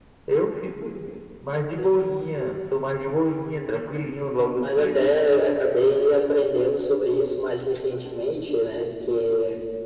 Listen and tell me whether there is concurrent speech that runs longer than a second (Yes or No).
No